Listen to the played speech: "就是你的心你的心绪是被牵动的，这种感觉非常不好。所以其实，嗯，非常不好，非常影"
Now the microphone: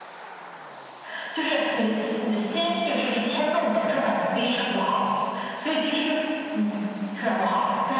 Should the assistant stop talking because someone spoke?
No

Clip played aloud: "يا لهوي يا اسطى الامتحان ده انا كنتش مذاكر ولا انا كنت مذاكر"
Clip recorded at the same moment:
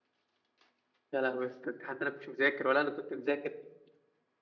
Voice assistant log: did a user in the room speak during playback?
No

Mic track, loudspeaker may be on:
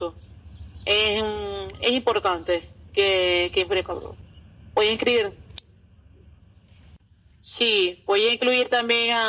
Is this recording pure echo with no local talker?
Yes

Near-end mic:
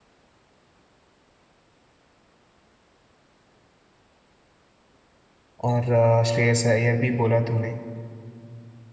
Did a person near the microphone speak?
Yes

